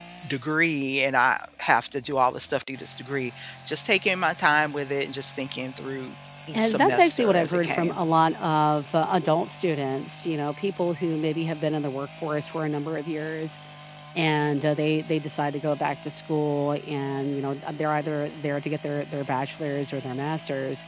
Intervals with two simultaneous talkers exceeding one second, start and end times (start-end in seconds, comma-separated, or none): 6.5-8.0